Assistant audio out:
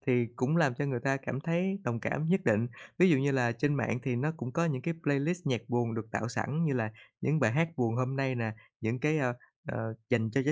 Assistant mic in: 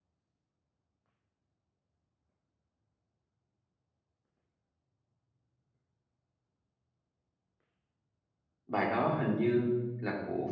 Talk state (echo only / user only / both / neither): user only